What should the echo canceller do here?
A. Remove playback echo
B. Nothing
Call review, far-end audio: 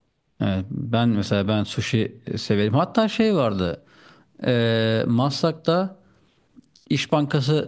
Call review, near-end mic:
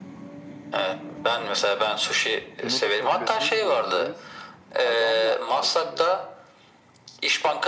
A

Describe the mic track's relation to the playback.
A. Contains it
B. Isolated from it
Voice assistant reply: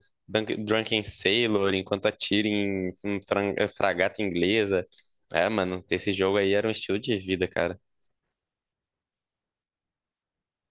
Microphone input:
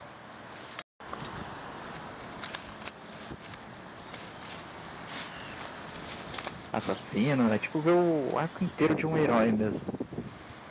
B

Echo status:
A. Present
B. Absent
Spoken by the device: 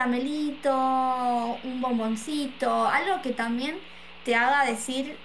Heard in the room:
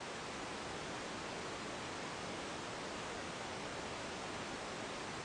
B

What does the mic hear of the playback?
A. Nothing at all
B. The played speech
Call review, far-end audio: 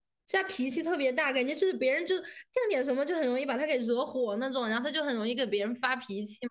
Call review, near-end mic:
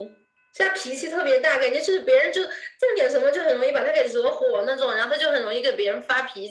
B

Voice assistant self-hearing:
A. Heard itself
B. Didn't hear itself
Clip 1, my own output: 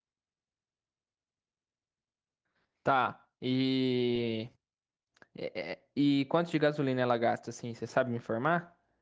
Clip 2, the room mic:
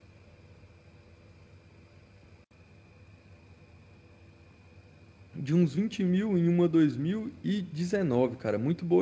B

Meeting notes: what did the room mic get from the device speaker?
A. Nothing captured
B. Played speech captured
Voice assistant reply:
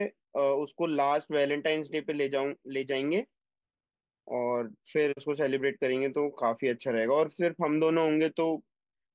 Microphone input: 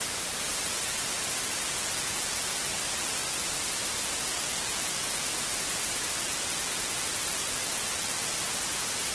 A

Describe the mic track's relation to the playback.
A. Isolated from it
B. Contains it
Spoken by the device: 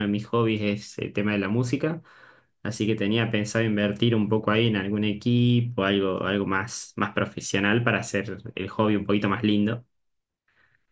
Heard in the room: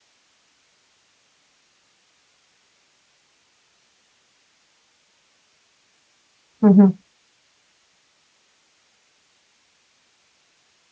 A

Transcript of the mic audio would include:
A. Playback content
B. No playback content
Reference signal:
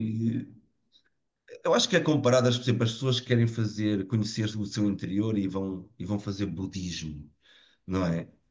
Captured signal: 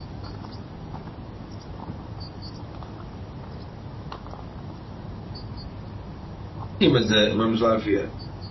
B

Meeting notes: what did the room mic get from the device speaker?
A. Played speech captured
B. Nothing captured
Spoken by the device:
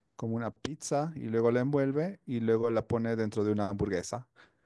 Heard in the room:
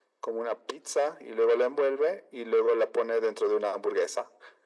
A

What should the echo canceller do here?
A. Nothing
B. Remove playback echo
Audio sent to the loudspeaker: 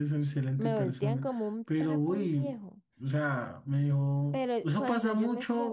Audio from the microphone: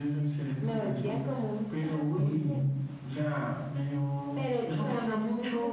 B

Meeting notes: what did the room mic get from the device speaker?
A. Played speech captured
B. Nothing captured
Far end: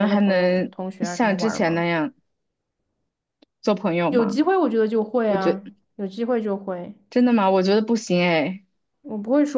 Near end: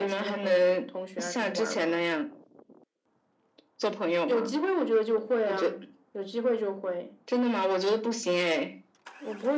A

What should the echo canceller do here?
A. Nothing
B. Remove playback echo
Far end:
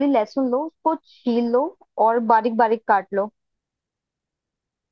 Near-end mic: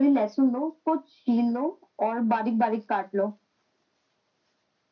B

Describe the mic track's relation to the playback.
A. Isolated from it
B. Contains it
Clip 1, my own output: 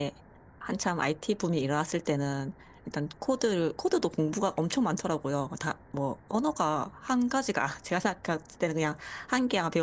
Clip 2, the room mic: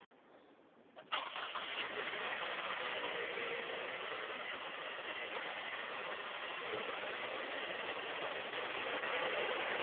A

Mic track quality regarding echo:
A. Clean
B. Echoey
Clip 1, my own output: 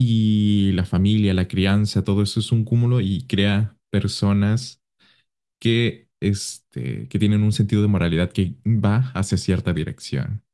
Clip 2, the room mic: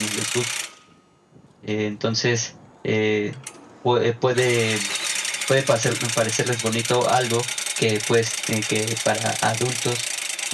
A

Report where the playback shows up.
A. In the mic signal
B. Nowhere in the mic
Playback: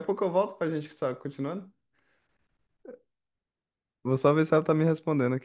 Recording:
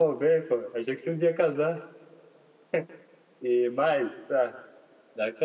B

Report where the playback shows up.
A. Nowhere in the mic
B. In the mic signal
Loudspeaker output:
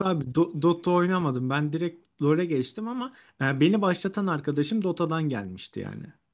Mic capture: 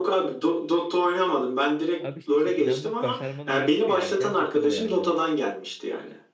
B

